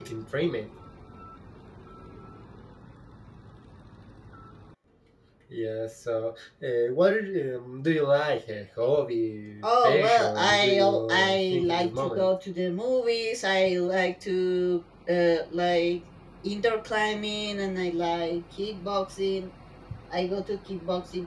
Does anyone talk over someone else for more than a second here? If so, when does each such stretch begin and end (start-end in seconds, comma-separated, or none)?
9.6-12.3